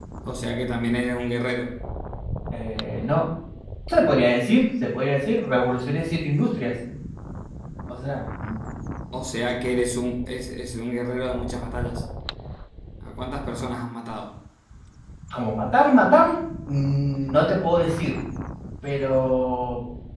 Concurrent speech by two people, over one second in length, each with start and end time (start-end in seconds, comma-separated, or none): none